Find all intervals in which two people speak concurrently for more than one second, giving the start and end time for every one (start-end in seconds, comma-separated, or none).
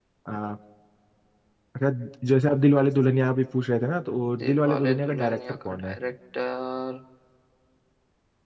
4.4-6.0